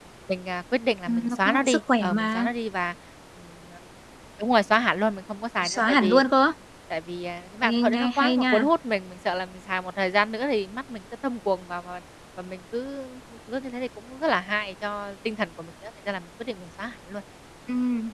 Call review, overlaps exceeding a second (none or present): present